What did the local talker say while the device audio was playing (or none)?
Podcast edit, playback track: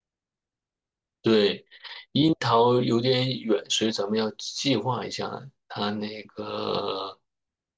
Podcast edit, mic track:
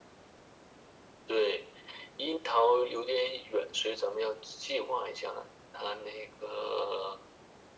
none